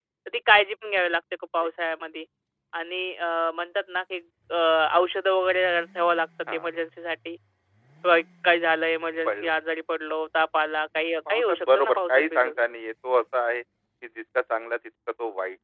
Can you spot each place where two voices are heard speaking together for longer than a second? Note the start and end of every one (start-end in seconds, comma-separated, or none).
11.3-12.6